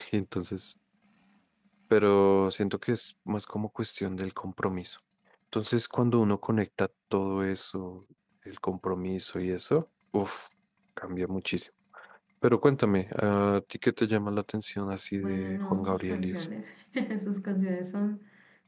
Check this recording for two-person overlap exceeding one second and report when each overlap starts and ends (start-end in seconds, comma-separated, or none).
15.1-16.4